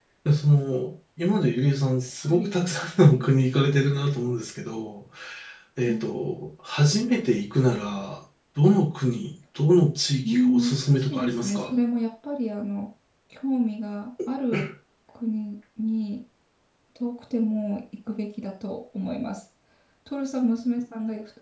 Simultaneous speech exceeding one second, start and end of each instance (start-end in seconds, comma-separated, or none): 10.3-11.7